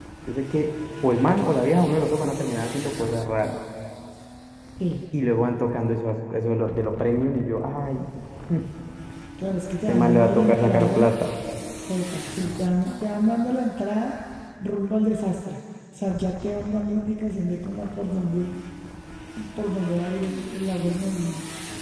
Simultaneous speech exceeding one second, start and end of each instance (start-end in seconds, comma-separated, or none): 9.9-11.1